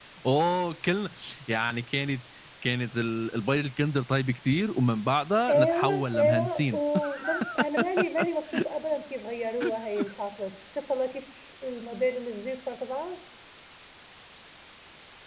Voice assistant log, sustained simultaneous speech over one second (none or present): present